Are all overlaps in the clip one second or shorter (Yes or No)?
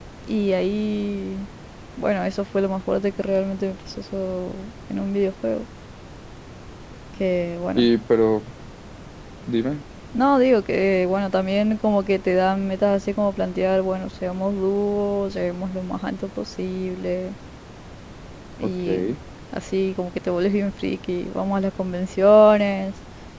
Yes